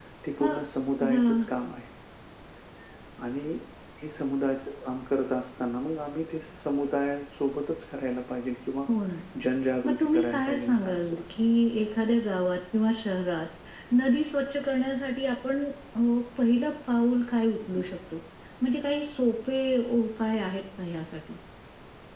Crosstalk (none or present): present